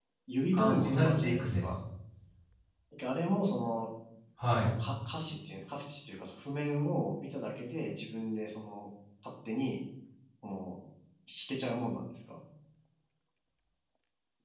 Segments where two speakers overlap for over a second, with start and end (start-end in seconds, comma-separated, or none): 0.5-1.8